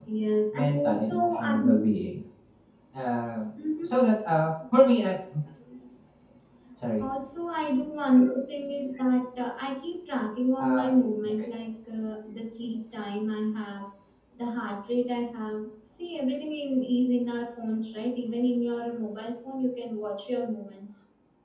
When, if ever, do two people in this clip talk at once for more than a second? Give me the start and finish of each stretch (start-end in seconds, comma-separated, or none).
0.5-1.9